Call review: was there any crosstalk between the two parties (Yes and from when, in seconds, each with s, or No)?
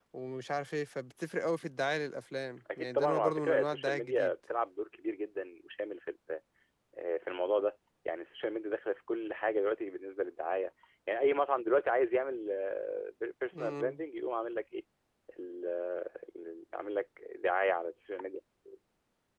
Yes, from 2.8 s